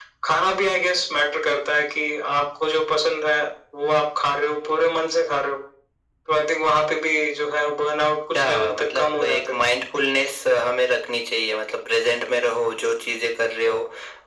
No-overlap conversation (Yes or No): No